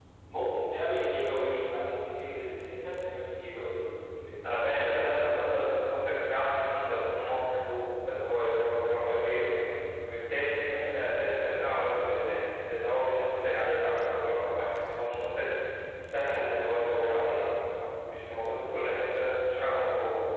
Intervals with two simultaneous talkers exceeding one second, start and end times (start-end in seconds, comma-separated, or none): 4.4-5.8